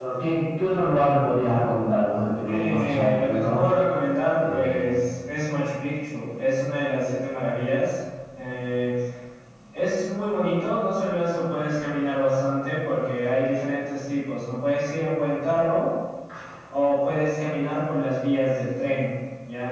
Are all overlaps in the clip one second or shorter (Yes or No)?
No